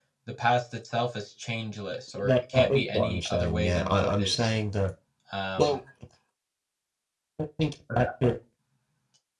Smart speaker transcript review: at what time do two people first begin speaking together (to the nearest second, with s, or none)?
2 s